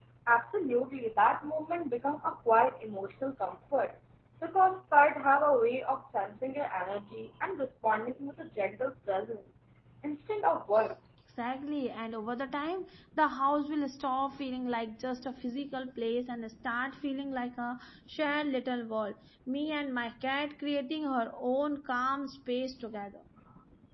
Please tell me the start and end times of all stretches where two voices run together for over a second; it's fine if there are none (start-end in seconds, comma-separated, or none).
none